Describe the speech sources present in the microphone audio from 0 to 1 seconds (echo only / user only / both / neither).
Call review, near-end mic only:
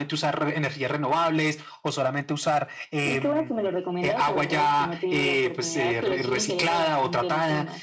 echo only